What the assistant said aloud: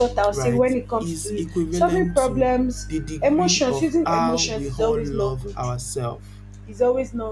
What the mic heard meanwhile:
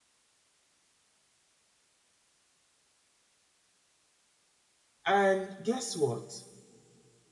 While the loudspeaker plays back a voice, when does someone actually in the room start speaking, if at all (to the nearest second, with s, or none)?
5 s